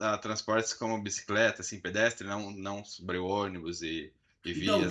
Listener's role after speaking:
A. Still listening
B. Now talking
B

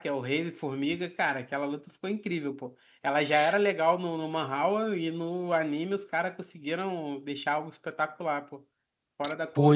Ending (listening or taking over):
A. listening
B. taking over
B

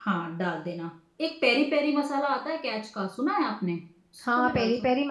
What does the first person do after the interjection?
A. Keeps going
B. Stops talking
B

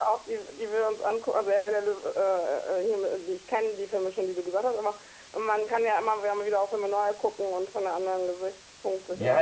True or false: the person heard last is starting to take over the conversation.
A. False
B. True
B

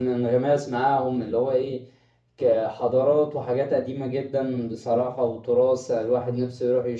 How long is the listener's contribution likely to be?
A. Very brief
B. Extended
A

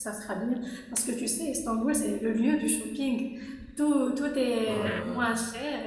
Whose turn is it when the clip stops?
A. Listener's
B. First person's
B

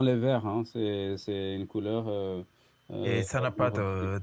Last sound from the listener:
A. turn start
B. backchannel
A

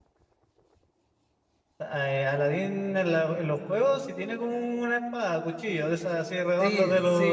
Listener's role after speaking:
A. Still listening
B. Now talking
B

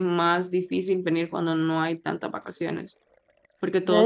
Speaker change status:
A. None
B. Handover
B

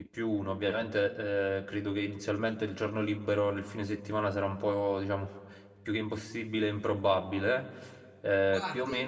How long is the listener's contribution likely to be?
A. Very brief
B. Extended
A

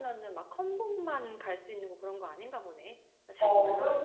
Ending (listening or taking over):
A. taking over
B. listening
A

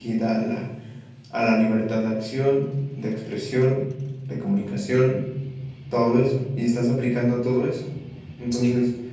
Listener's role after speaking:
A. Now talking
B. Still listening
B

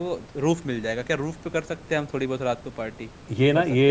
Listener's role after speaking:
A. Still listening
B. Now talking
B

